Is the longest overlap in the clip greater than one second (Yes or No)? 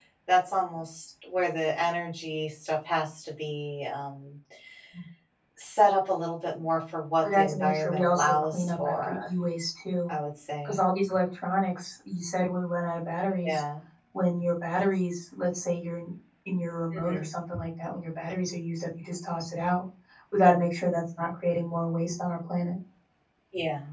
Yes